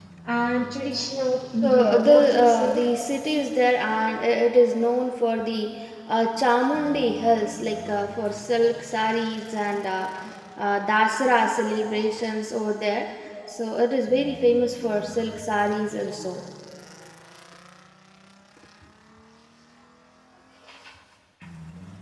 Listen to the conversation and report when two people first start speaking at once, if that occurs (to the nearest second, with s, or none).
2 s